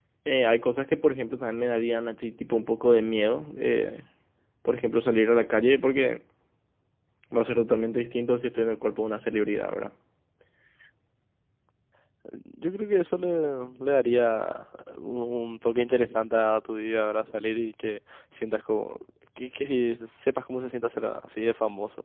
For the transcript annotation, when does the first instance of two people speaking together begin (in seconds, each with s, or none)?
none